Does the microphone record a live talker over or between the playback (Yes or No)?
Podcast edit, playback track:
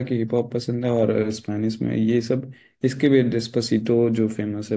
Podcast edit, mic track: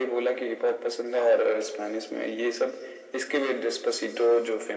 No